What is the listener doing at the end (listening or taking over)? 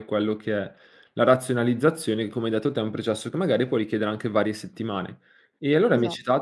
listening